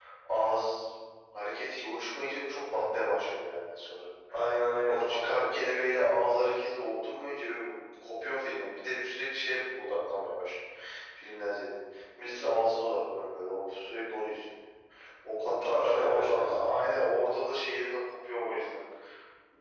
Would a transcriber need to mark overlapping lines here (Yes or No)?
Yes